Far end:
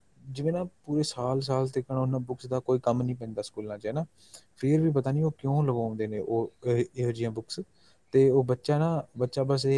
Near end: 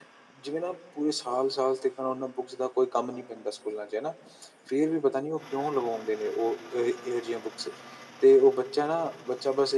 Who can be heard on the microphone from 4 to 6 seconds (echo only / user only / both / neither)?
echo only